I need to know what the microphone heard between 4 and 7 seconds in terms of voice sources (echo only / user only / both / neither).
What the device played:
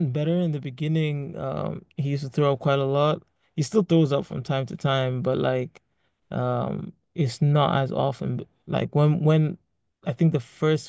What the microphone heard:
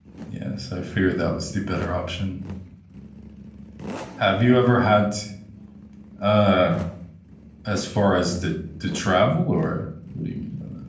user only